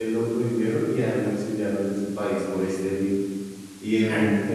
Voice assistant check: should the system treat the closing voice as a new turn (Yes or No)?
No